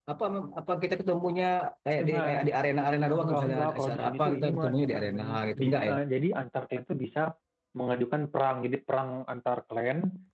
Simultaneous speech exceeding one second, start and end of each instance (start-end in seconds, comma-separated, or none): 3.2-5.9